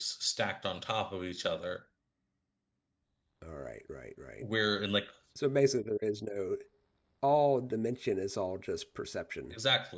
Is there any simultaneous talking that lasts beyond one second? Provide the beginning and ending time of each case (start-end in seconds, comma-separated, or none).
none